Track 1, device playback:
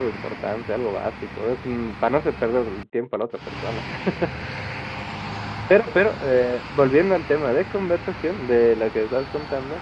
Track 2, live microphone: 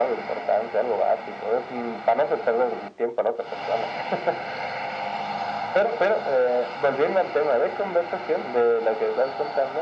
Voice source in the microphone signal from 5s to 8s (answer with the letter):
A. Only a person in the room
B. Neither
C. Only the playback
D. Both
C